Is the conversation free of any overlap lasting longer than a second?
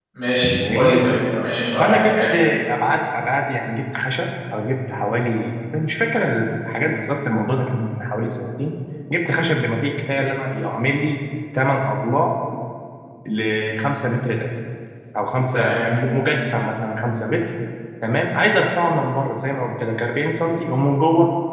Yes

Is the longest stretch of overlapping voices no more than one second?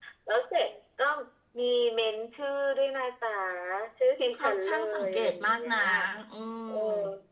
No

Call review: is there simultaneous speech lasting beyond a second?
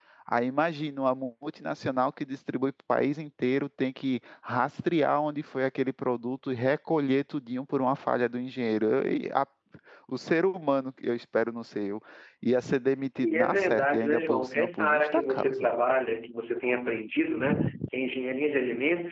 Yes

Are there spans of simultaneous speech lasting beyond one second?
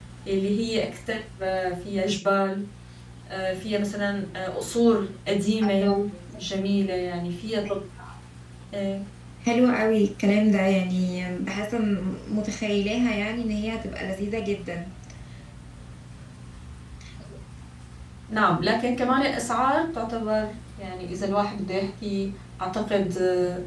No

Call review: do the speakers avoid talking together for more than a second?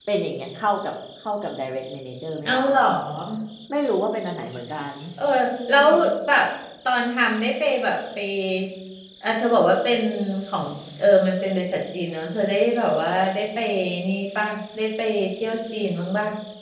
Yes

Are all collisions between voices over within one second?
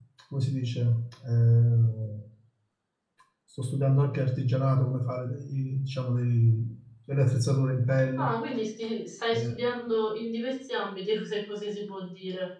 Yes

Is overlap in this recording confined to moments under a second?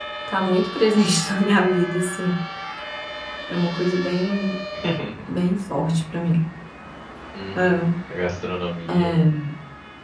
Yes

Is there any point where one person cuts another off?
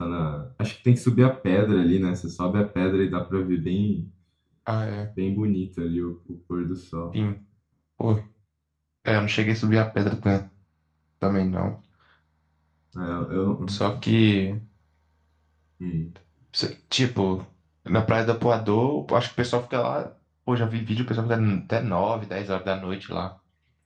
No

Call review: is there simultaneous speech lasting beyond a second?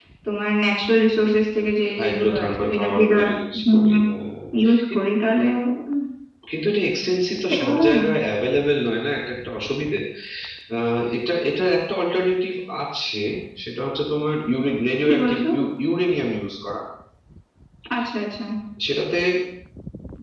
Yes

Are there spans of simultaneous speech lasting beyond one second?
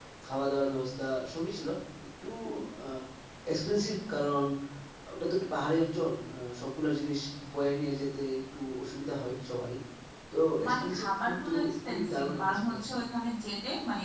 Yes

